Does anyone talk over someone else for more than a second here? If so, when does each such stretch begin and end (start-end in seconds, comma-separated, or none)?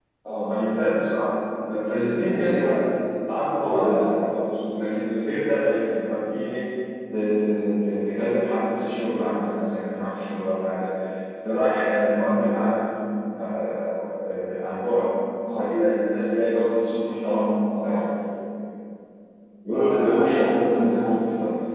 19.7-21.1